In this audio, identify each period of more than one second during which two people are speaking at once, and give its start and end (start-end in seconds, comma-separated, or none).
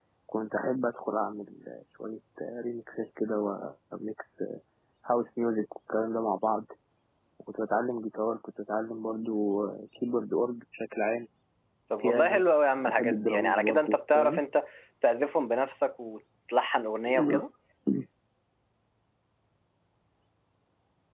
12.9-14.4